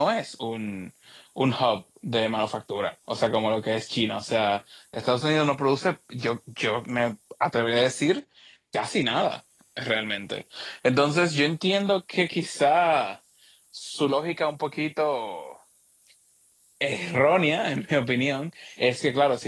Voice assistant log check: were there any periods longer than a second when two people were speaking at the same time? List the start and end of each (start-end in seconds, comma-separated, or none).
none